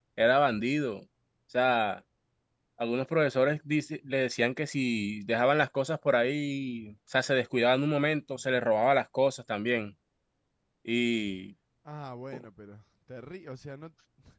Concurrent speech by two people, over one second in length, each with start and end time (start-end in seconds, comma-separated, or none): none